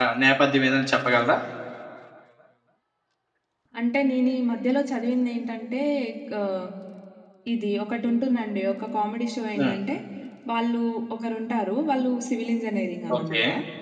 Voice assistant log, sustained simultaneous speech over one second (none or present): none